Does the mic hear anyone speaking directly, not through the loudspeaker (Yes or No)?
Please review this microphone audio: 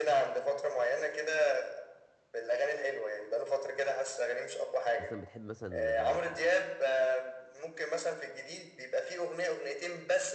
Yes